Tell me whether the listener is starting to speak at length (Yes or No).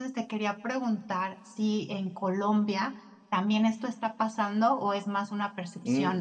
Yes